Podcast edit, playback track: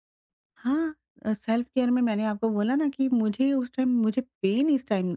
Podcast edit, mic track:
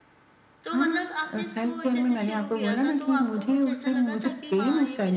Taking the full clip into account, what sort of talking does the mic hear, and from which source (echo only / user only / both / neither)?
both